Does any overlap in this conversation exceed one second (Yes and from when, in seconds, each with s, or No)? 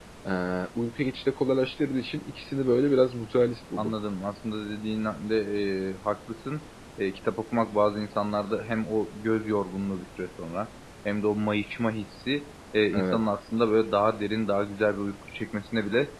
No